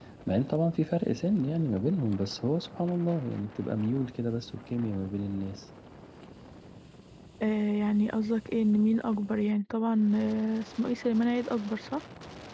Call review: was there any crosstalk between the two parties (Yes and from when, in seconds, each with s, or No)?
No